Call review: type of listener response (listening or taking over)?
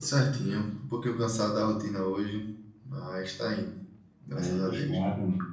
taking over